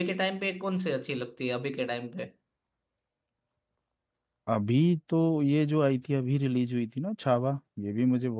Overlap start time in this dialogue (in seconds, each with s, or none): none